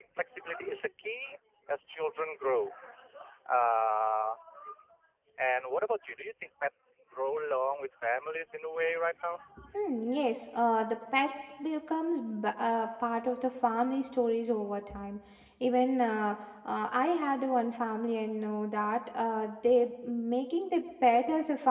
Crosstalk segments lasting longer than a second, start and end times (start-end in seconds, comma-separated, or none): none